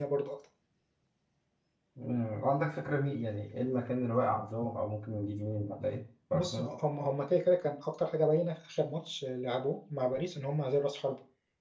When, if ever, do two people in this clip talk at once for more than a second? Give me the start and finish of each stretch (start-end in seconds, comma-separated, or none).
none